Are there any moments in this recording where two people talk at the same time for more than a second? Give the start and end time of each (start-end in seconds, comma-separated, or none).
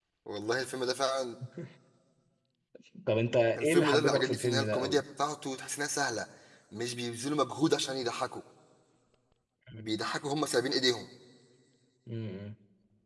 3.5-5.0